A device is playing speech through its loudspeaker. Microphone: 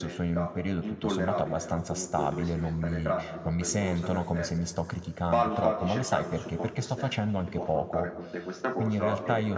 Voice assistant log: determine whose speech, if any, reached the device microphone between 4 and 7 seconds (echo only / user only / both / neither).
both